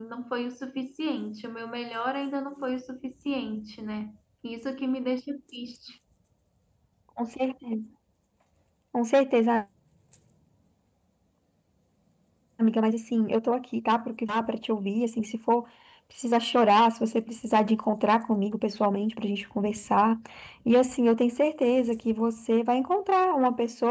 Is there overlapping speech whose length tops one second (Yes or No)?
No